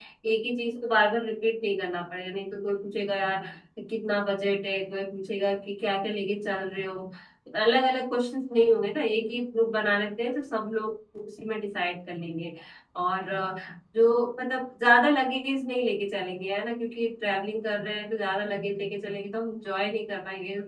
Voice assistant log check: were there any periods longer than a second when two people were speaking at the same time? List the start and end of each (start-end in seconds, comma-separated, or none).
none